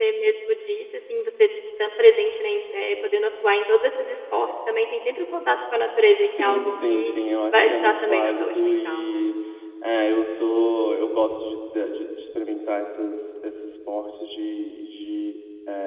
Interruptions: present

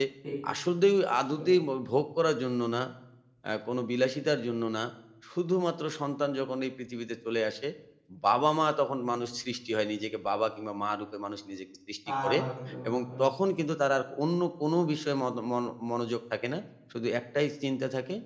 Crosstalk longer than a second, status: none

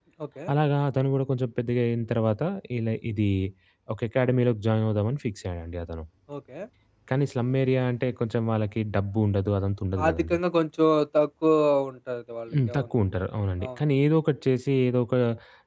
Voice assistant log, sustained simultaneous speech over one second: none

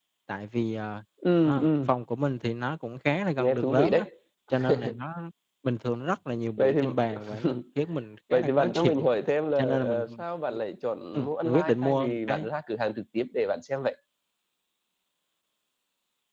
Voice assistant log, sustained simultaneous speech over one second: present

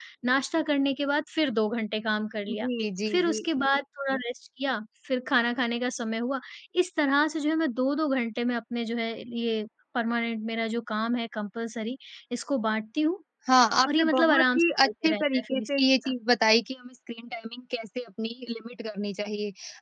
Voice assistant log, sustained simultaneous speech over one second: present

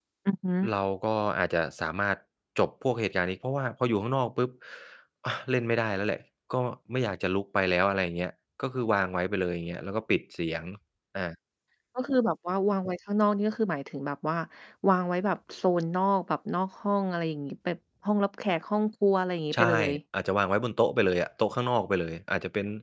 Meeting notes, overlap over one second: none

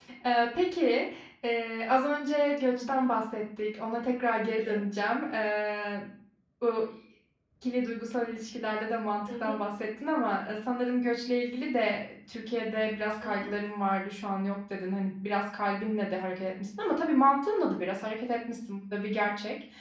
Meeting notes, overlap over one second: none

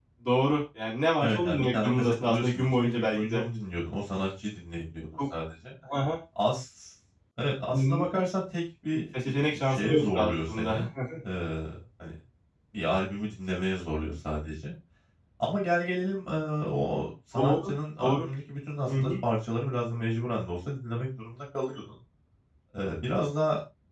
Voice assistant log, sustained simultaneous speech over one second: present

